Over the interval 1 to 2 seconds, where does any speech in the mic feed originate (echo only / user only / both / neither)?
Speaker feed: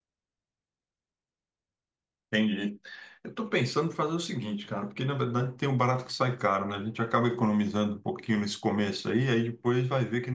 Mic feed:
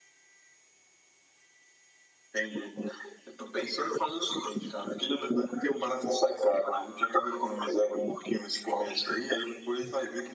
neither